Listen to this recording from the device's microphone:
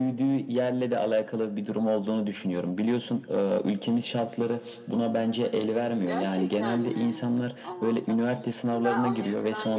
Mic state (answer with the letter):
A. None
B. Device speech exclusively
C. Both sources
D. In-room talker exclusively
C